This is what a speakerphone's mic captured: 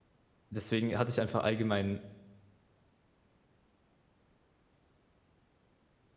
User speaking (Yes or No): Yes